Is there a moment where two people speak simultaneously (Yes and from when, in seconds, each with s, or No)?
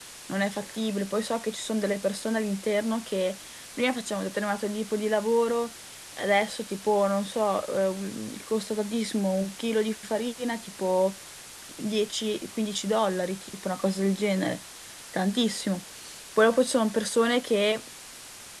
No